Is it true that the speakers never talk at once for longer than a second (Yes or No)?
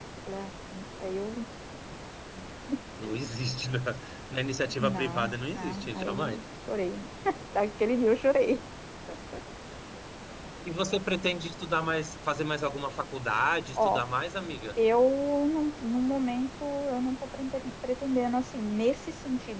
No